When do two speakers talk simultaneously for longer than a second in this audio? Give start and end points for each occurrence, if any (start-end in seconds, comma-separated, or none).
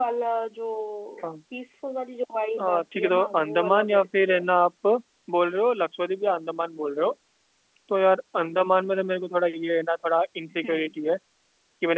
2.6-4.5